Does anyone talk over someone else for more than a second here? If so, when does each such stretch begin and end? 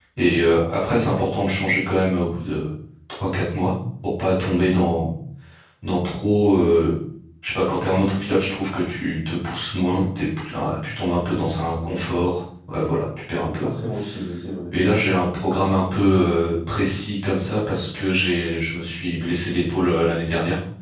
none

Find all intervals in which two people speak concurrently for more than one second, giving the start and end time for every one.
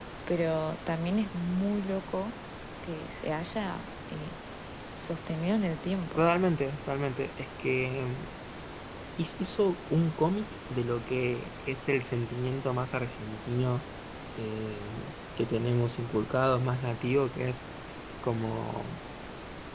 none

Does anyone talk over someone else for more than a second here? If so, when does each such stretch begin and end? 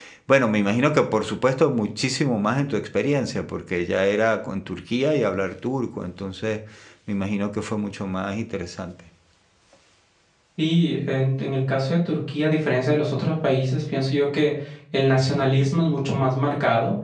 none

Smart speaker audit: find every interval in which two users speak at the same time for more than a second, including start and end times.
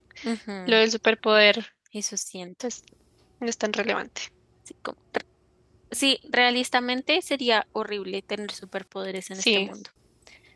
none

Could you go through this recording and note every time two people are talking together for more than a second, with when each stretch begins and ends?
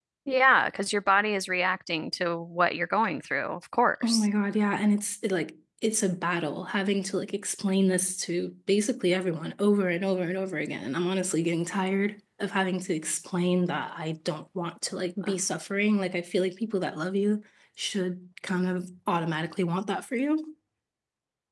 none

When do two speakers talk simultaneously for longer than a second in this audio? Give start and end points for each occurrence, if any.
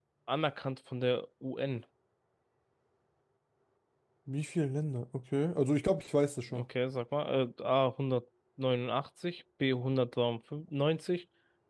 none

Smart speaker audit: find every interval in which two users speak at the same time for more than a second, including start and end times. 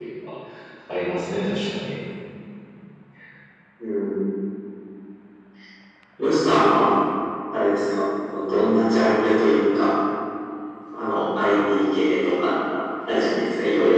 none

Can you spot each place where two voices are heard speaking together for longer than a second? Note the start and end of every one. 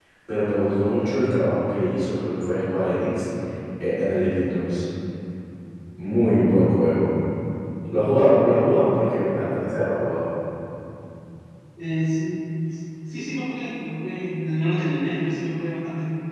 none

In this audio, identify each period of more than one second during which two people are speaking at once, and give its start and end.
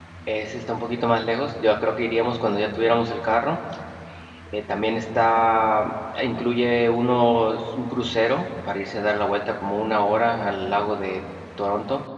none

